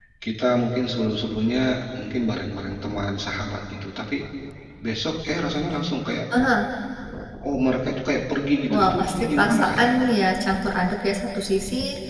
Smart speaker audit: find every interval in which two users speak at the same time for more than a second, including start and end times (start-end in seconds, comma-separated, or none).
8.7-9.9